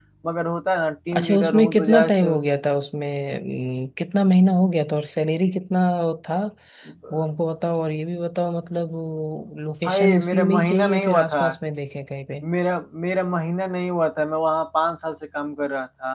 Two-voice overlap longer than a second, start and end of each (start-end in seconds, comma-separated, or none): 1.1-2.4, 9.8-11.3